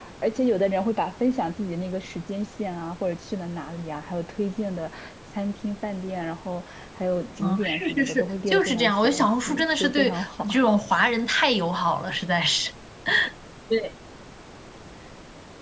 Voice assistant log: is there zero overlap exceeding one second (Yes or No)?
No